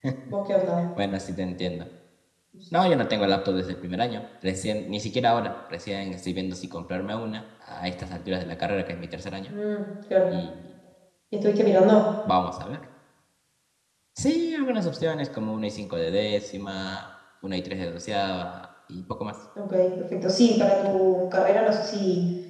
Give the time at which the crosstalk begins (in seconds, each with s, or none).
none